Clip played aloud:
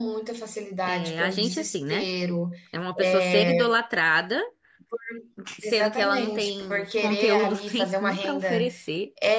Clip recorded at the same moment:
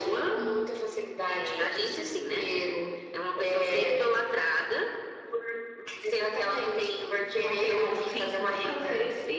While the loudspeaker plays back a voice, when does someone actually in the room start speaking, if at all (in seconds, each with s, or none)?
none